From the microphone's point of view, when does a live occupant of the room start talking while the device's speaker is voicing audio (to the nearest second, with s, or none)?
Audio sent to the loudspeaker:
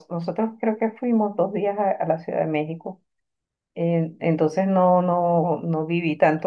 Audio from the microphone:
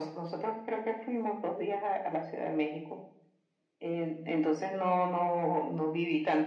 none